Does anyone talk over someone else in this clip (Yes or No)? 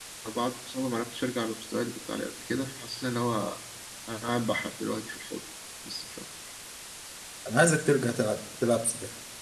No